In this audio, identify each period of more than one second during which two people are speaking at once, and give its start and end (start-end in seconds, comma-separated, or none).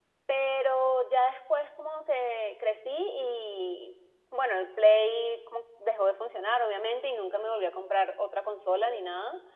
none